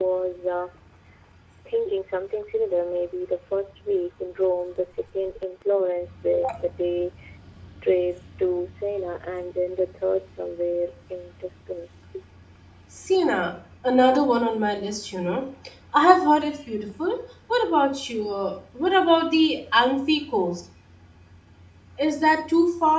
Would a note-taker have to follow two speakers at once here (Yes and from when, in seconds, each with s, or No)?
No